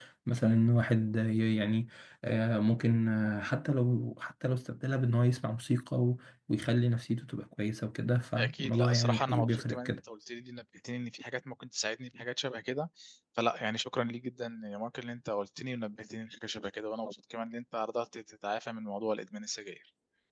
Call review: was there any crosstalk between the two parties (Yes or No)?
Yes